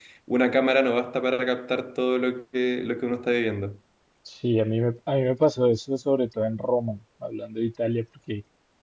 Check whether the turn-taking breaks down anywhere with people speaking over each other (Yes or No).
No